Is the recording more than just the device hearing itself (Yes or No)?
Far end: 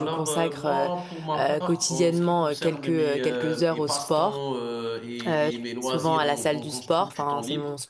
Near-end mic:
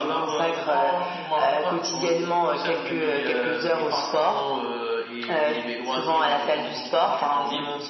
No